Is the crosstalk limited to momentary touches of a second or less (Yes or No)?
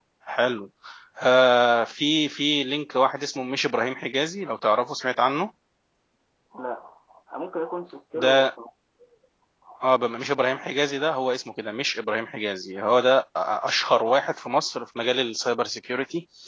Yes